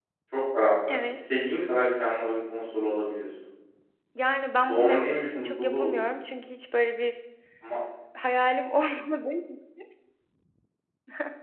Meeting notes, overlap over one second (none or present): present